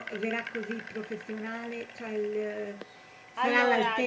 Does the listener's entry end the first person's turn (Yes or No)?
No